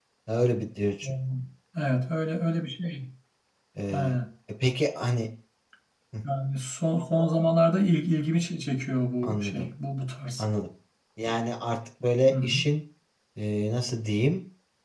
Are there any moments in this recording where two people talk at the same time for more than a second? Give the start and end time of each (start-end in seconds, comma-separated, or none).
none